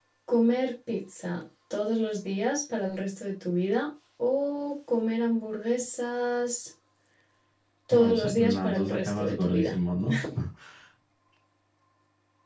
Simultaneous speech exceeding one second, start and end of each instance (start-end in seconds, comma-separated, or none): 7.9-9.8